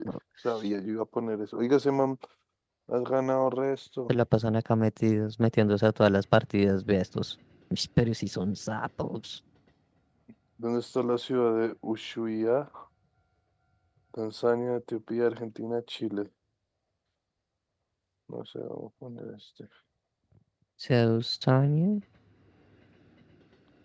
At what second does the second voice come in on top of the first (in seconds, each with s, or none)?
none